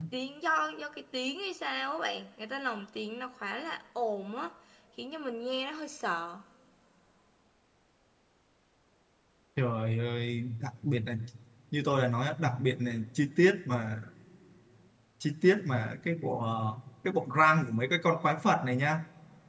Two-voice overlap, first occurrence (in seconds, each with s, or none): none